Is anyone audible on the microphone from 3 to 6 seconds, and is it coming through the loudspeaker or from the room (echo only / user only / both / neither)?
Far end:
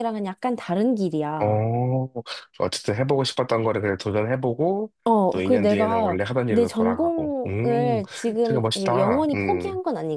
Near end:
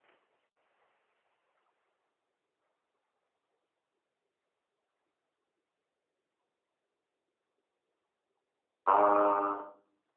neither